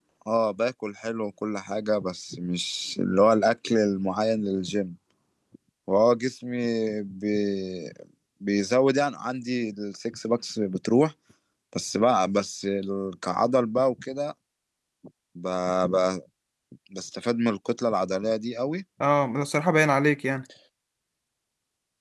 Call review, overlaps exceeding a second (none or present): none